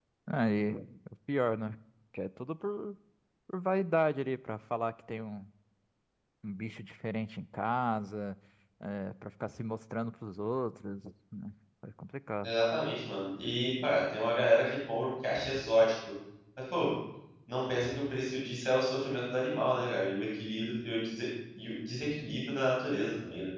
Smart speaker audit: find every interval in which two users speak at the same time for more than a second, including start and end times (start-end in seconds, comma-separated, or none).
none